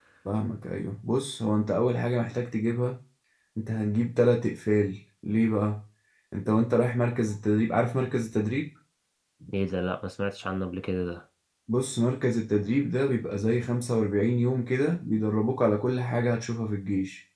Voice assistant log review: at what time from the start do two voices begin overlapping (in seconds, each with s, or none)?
none